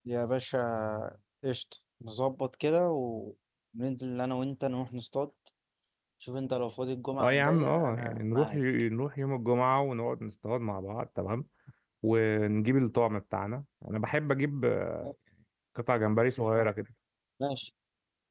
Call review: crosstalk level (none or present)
present